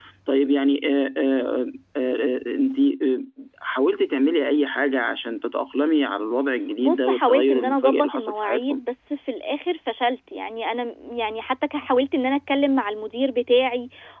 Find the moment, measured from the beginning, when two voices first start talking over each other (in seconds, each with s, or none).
6.8 s